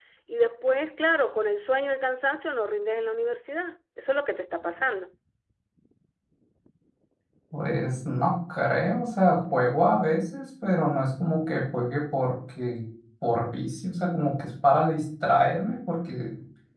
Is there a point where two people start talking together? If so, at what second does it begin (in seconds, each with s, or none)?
none